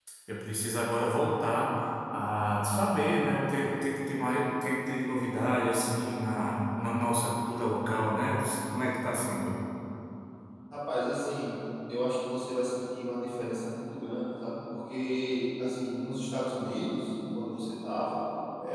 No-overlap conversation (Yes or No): Yes